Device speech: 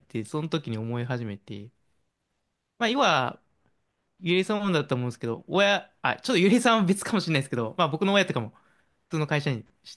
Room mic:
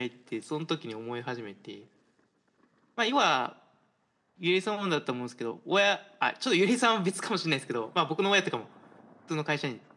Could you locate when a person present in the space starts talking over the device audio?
none

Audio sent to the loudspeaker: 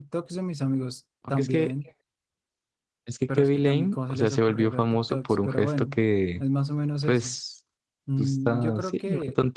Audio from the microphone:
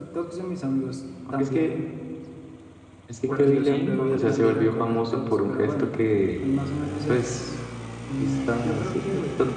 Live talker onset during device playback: 3.2 s

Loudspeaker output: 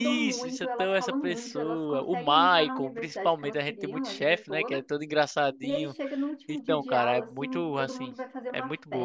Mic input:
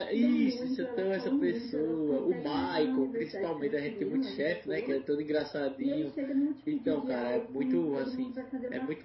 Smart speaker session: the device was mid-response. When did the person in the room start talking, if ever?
none

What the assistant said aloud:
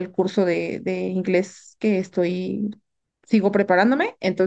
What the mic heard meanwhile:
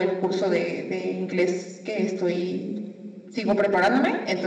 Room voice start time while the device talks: none

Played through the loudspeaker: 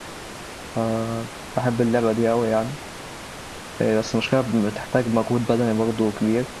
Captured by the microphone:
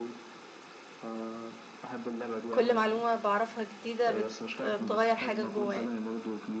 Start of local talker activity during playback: 2.5 s

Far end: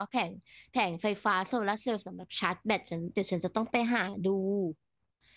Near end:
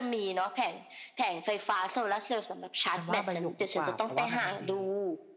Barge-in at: 2.9 s

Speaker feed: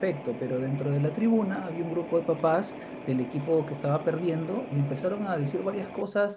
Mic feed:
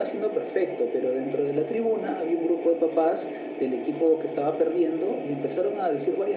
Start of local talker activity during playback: none

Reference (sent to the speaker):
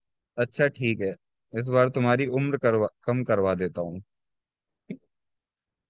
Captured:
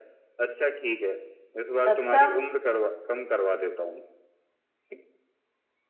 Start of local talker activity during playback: 1.9 s

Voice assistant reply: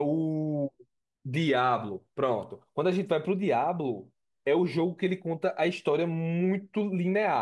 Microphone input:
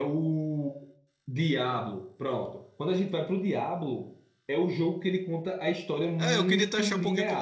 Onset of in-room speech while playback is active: 6.2 s

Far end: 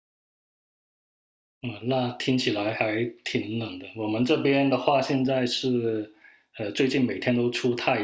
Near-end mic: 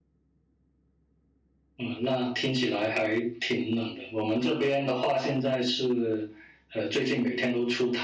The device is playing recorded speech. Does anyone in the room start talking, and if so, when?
none

